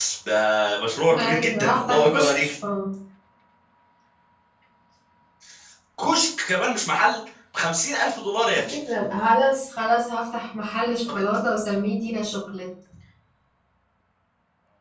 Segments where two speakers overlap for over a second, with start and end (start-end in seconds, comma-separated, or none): 1.3-2.5